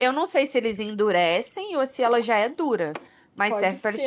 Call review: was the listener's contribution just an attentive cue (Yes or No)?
No